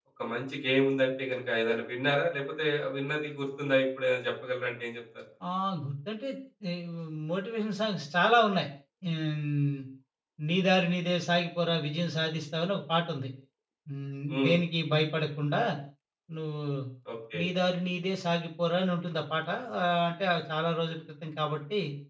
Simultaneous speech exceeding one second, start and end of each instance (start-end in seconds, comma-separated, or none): none